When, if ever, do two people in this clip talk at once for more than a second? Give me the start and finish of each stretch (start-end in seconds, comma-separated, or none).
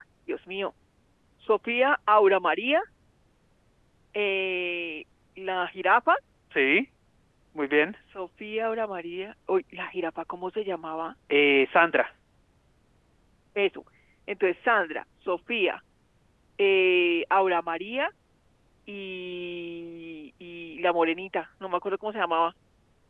none